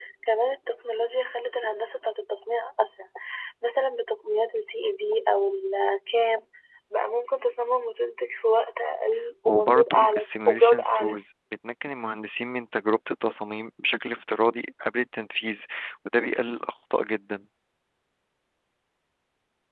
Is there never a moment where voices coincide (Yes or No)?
No